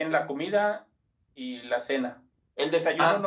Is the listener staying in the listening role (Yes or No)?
Yes